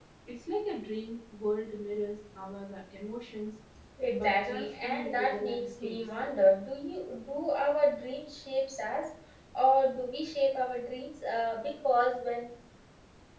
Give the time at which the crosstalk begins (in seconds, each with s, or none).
4.1 s